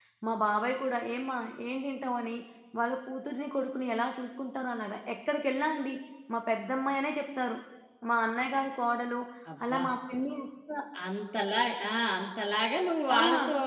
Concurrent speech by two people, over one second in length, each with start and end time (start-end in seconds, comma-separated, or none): none